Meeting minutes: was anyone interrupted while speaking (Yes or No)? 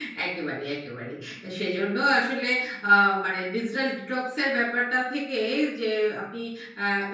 No